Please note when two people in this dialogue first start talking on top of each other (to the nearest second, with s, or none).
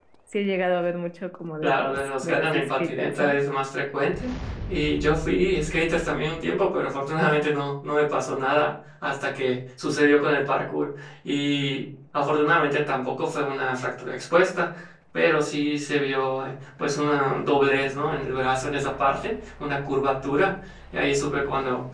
2 s